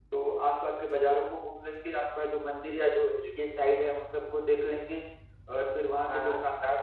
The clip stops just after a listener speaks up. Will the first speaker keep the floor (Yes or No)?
Yes